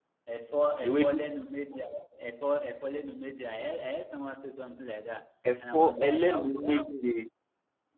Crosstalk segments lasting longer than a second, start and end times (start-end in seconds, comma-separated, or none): 5.6-7.0